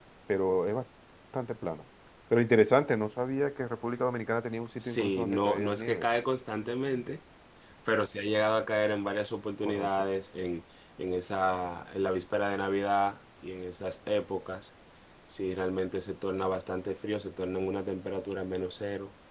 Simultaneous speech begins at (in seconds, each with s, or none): 4.8 s